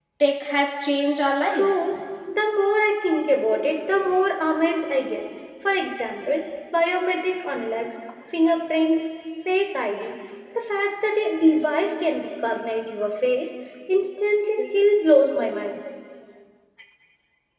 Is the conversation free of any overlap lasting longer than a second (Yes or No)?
Yes